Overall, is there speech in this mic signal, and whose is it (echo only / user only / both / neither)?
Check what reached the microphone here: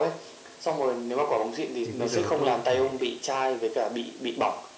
both